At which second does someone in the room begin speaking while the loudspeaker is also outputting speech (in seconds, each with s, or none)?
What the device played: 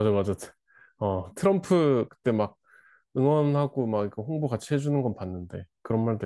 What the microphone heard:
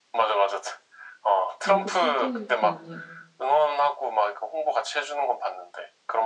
1.6 s